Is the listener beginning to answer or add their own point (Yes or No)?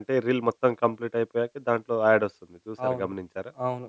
Yes